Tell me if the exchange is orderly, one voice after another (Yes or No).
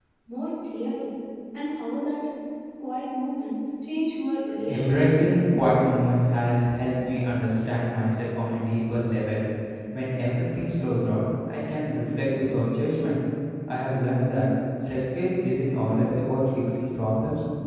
No